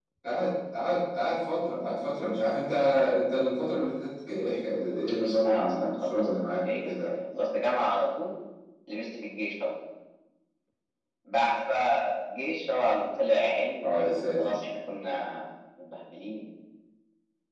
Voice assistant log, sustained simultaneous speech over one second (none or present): present